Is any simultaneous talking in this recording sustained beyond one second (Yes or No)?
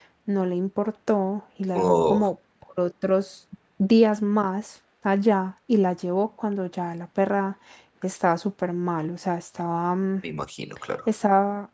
No